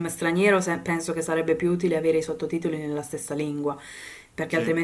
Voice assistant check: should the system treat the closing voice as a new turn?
No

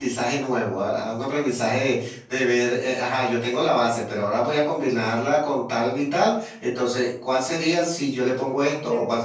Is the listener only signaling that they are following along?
Yes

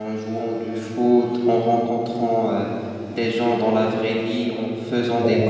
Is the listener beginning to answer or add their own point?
No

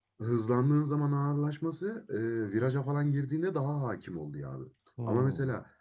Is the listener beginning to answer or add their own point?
No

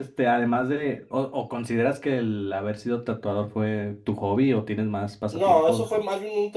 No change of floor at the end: No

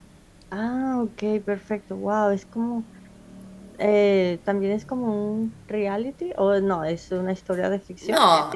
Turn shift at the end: Yes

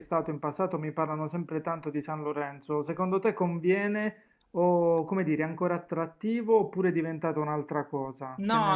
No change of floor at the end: No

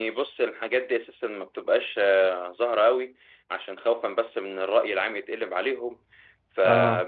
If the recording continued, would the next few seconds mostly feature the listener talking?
No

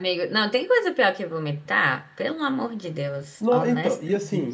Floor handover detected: Yes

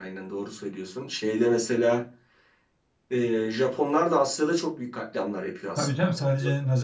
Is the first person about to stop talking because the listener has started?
Yes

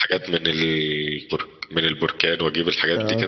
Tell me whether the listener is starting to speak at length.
Yes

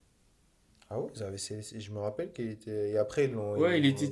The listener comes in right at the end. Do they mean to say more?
Yes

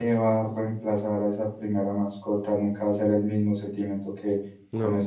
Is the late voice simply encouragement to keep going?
Yes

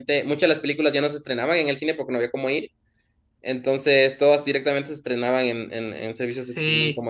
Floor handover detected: Yes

